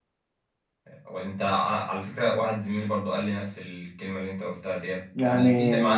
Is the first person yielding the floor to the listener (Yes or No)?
No